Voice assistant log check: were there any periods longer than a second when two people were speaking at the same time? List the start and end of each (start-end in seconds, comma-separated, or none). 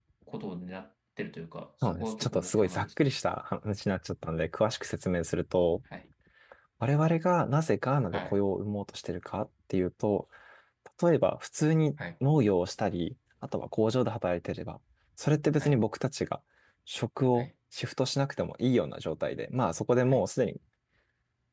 1.8-3.1